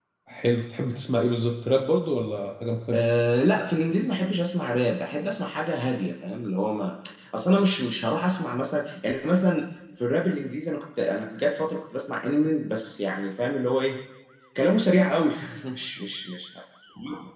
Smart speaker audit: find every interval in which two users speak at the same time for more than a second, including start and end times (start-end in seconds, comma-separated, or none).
none